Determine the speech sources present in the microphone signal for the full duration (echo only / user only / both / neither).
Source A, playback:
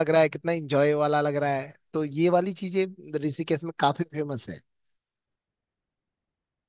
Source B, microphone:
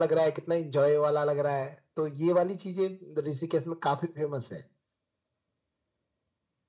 echo only